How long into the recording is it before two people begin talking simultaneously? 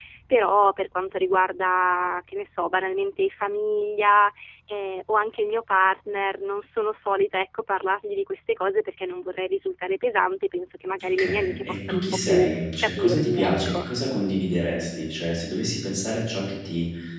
11.0 s

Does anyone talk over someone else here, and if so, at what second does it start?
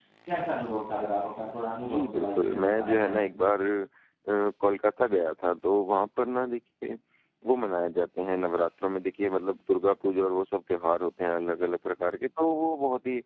1.8 s

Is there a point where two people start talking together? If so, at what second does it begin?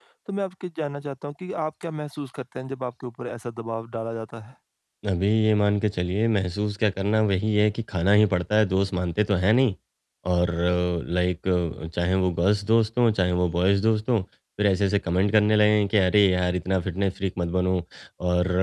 none

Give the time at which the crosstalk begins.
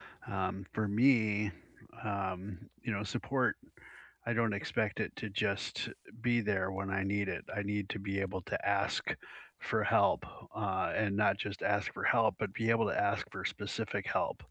none

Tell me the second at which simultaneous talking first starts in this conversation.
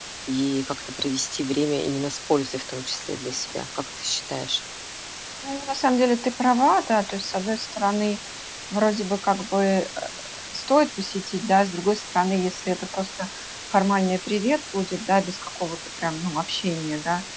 none

